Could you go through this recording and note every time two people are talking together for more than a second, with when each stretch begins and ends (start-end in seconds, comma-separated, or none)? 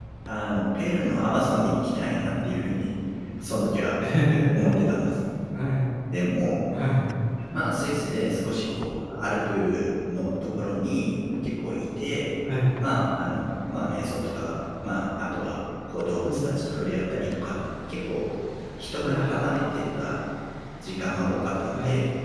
none